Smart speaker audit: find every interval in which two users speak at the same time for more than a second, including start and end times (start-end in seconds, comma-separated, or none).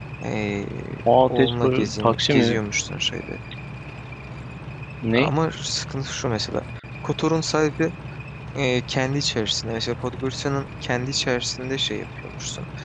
1.3-2.5